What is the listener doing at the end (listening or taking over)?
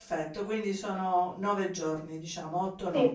listening